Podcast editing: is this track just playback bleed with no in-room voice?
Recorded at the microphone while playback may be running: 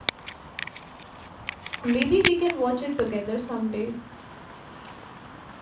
No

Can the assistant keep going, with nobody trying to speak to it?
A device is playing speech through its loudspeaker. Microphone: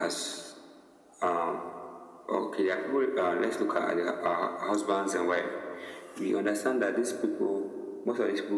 Yes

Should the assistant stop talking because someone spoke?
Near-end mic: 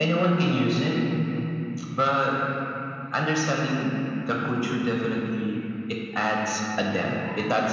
No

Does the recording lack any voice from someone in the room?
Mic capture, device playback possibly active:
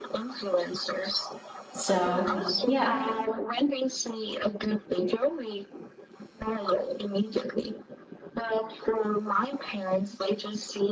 No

